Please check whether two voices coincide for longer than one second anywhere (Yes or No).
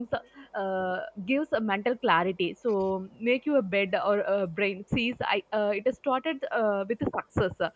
No